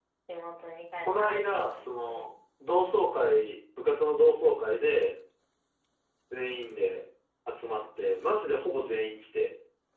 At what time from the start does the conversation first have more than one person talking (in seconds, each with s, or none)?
1.1 s